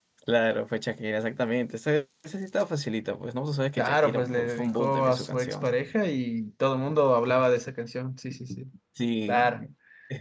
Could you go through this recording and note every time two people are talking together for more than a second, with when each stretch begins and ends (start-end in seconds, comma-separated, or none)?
3.8-5.8